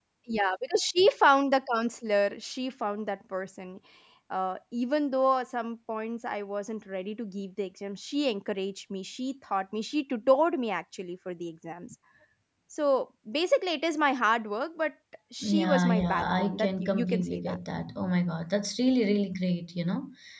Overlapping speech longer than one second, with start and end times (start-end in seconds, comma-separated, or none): 15.4-17.6